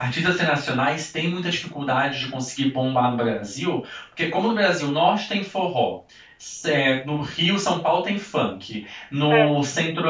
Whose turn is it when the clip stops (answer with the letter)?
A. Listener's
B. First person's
B